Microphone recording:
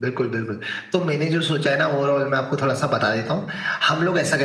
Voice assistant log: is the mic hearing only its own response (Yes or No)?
Yes